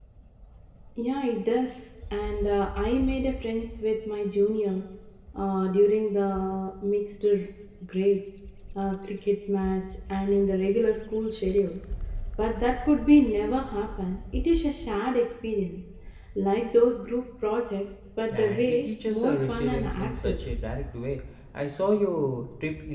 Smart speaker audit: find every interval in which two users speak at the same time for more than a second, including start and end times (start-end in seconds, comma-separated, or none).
18.3-20.4